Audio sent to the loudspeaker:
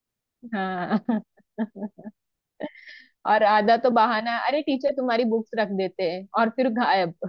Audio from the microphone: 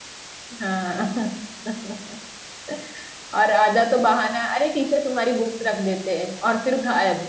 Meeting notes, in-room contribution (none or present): none